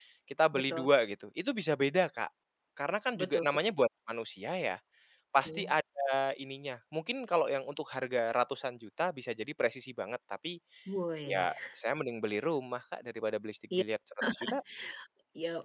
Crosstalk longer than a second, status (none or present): none